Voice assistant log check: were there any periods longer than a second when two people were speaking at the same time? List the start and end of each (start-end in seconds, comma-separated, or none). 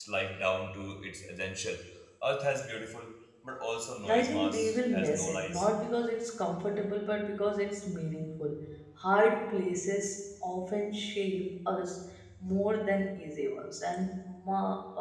4.1-5.7